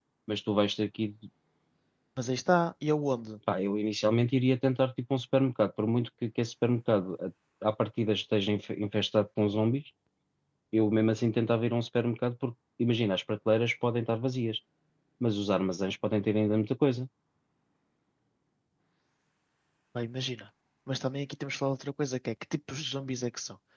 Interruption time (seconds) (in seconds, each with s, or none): none